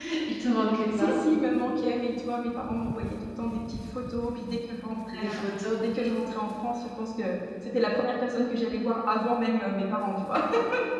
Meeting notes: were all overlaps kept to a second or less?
Yes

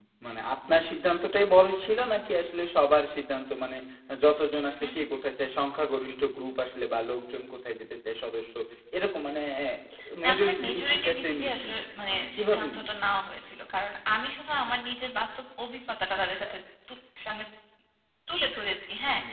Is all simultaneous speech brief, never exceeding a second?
No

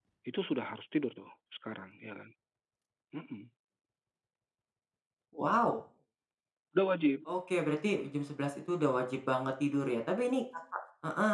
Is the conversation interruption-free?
Yes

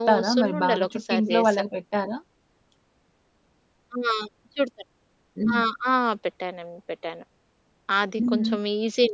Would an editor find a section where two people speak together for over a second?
Yes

